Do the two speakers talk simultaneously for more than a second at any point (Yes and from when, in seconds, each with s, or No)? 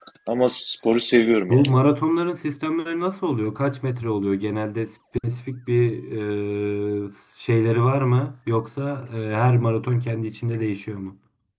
No